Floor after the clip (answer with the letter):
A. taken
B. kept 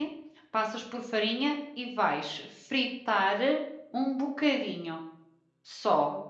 A